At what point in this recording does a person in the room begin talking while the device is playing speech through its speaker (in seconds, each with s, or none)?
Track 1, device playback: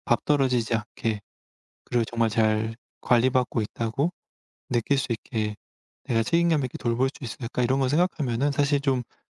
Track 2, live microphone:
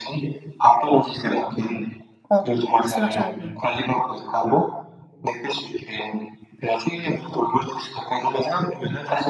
2.3 s